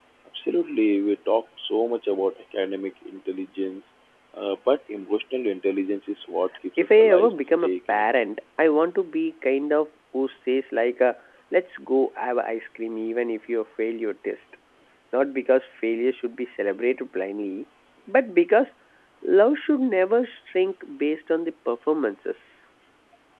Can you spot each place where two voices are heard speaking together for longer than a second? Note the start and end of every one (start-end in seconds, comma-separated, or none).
6.8-8.2